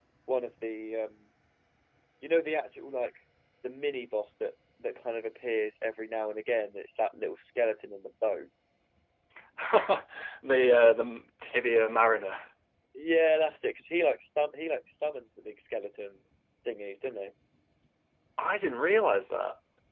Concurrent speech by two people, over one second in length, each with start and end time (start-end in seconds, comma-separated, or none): none